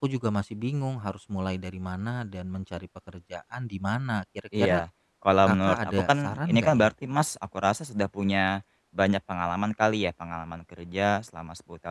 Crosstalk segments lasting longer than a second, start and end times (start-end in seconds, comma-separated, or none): 5.5-6.9